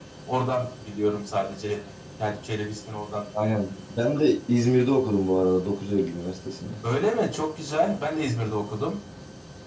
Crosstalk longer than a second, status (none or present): none